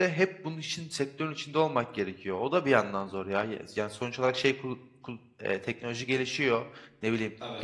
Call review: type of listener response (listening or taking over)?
listening